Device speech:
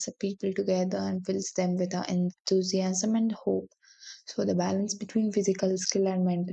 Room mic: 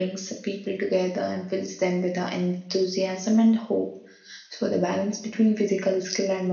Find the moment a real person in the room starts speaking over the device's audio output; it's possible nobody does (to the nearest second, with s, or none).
none